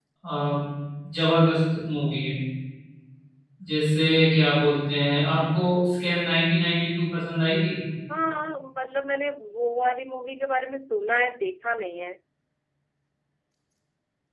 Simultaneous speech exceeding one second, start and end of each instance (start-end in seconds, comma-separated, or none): none